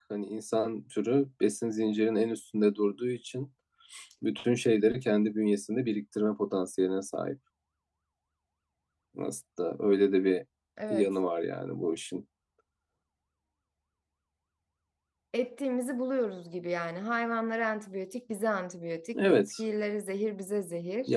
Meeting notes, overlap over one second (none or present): none